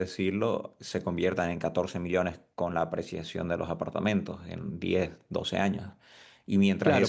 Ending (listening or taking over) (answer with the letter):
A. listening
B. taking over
B